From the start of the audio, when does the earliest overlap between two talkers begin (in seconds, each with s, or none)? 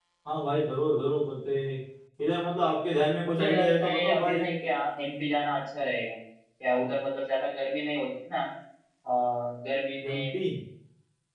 3.2 s